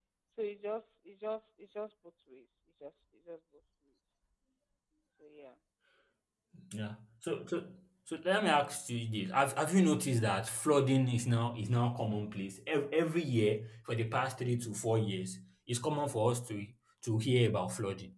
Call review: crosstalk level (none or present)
none